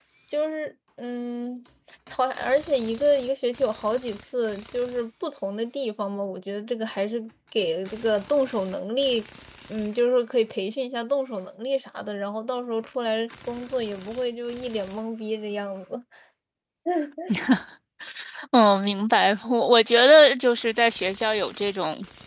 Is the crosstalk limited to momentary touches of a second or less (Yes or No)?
Yes